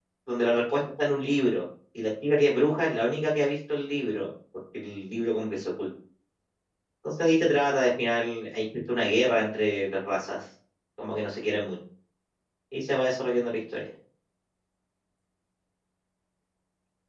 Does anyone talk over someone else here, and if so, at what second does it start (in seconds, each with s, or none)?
none